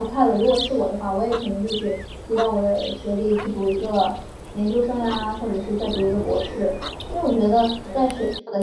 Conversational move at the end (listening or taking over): listening